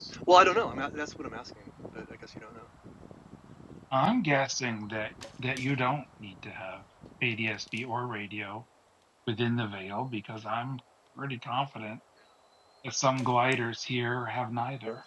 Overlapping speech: No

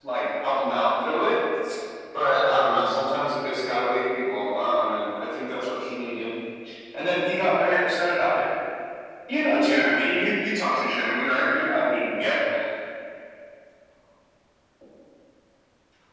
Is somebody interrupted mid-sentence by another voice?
No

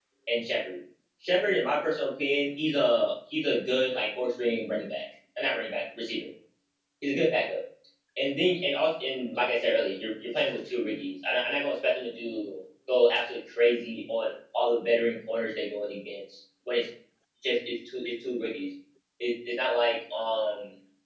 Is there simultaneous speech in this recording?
No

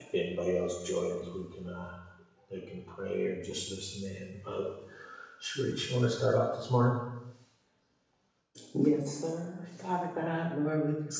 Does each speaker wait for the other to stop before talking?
Yes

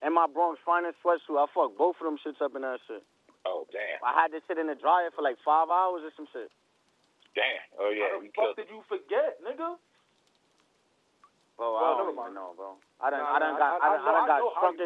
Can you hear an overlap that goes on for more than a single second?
Yes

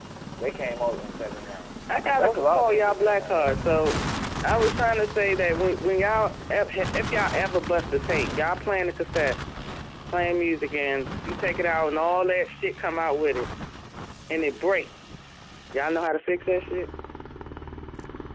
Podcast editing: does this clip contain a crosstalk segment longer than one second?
Yes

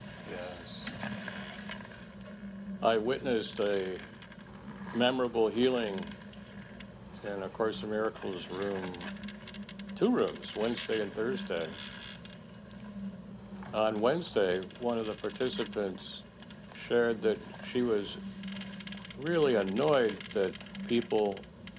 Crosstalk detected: No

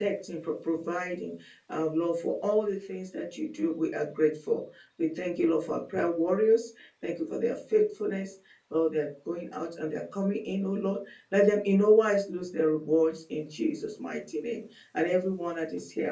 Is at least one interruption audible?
No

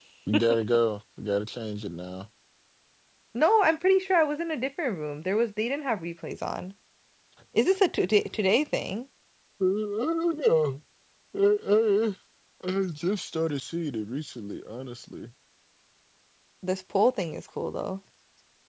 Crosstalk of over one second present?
No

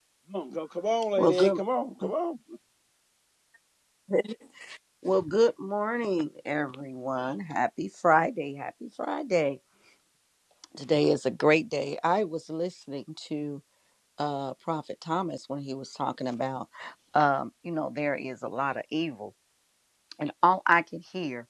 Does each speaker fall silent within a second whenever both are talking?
Yes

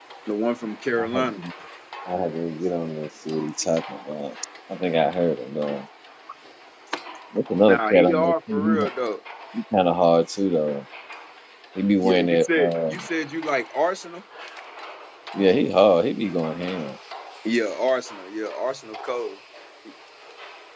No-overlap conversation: No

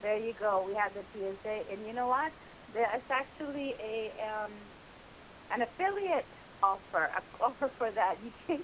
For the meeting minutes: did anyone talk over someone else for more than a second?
No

